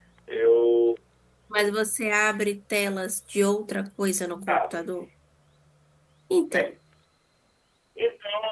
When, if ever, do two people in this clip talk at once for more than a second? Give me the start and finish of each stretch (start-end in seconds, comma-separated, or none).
none